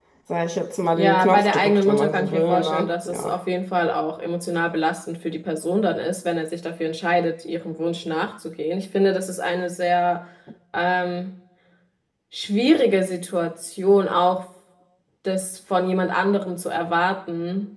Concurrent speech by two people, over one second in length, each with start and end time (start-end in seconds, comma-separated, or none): 0.9-3.3